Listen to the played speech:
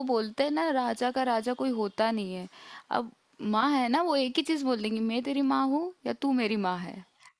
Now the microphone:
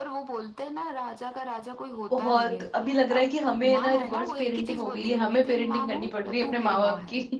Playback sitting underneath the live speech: Yes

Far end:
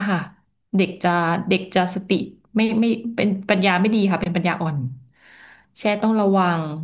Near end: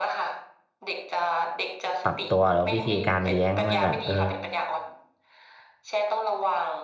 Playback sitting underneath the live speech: Yes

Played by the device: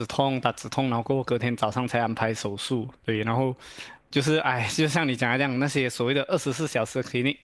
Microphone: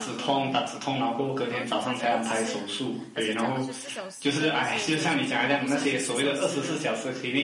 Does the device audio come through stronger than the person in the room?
Yes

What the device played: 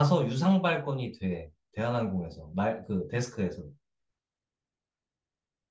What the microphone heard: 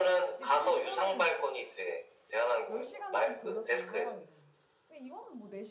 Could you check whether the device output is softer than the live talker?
No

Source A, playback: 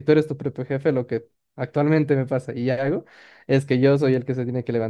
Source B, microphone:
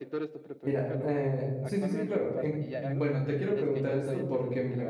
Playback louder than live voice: No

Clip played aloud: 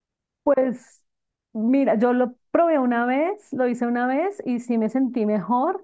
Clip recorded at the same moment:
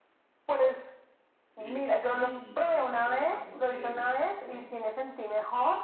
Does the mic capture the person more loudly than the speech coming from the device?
No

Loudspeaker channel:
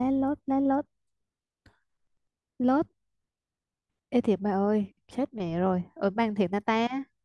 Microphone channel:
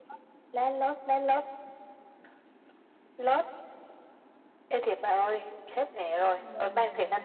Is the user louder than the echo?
No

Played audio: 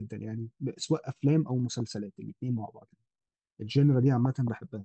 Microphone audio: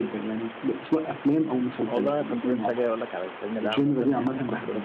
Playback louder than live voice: Yes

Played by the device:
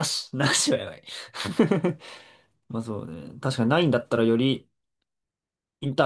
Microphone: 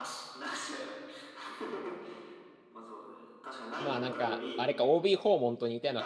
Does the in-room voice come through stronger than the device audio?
Yes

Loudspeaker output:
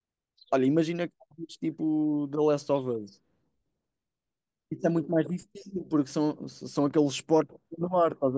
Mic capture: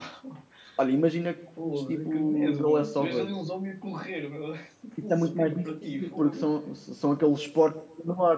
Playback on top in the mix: Yes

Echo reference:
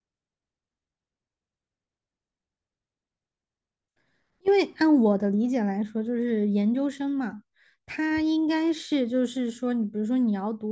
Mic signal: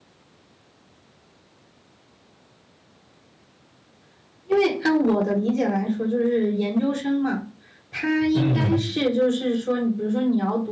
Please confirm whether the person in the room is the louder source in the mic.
Yes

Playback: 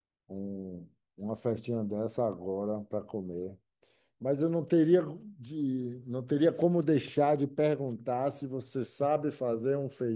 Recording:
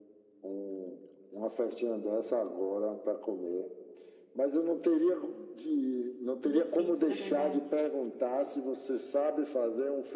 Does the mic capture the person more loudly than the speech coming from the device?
No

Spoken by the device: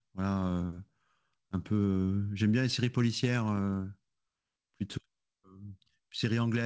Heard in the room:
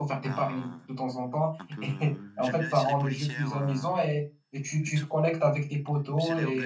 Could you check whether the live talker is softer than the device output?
No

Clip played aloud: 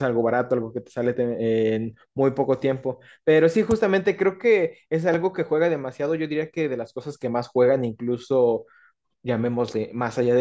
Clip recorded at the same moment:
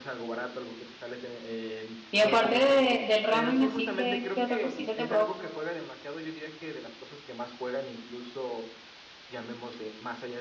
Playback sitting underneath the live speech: Yes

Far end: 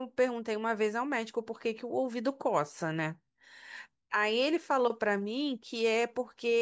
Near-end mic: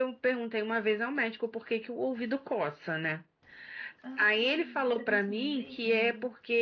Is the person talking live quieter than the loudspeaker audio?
Yes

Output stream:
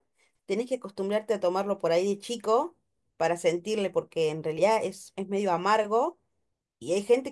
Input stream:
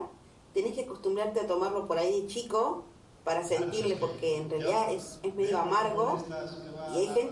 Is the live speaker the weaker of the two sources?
Yes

